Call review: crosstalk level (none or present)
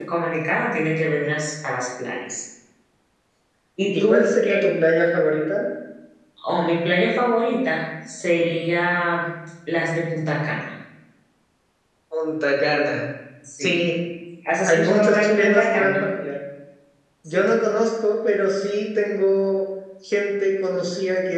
present